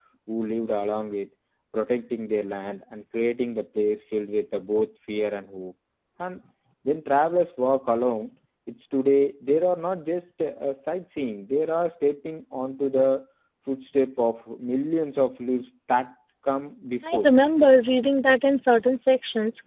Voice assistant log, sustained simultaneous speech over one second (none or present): none